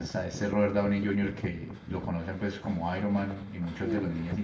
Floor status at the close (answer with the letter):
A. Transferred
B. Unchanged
B